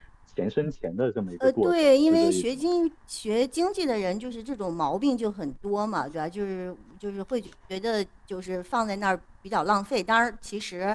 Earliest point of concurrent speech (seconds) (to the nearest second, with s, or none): 1 s